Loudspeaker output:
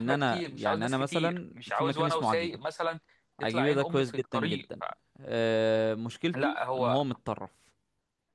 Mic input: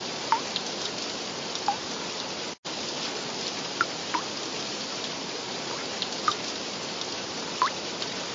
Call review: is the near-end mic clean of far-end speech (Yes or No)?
Yes